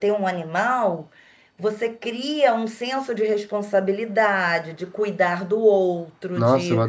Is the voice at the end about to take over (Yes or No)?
Yes